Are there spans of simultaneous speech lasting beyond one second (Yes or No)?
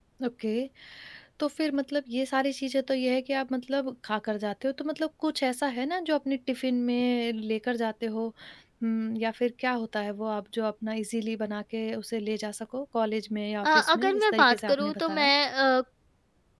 Yes